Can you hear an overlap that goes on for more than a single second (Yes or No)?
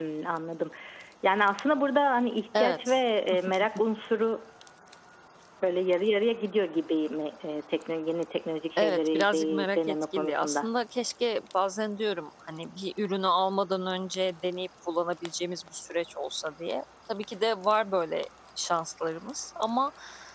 Yes